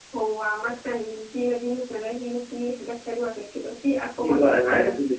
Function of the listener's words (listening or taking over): taking over